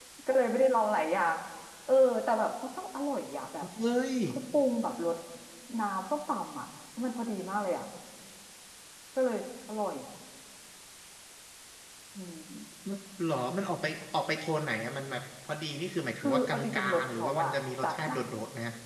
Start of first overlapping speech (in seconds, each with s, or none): 16.2 s